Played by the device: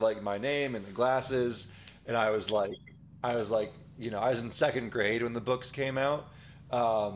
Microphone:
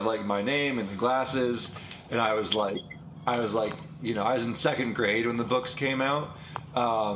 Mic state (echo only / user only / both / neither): echo only